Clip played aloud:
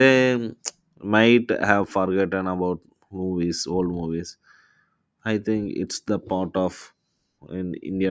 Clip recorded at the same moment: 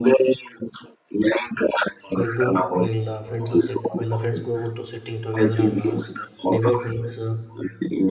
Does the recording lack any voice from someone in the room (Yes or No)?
No